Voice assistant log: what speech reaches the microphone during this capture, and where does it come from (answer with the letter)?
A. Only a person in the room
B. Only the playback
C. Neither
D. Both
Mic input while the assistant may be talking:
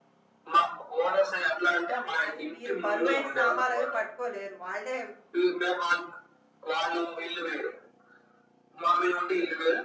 D